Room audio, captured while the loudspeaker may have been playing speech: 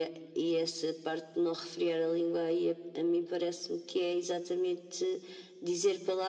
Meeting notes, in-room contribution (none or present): none